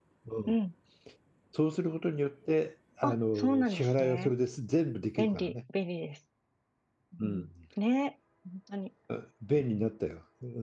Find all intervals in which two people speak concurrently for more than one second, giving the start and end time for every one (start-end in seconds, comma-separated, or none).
3.0-4.3